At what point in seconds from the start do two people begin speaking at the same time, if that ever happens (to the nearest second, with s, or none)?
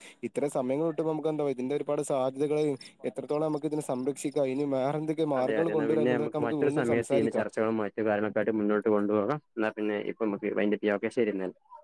5 s